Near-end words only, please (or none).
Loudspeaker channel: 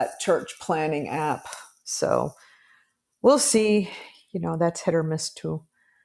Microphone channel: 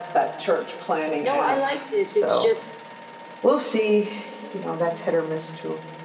No, I like this. It's just,